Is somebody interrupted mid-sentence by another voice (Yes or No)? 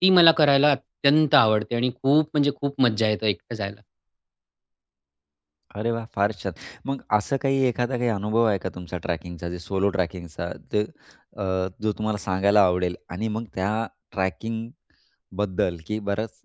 No